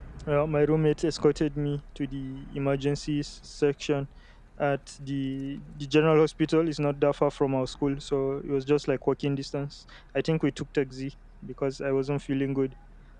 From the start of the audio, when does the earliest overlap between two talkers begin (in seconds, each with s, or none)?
none